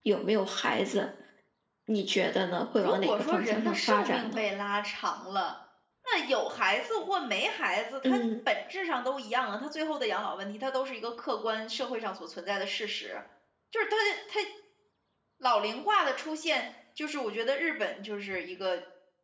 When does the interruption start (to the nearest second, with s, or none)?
3 s